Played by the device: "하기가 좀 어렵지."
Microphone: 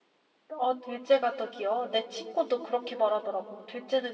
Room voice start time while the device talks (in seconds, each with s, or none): 0.6 s